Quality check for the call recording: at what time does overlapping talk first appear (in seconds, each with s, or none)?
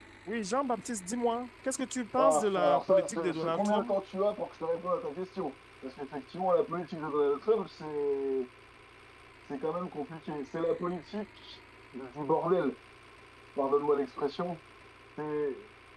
2.2 s